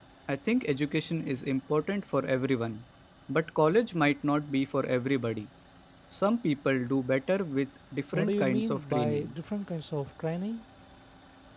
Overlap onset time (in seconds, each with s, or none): 8.1 s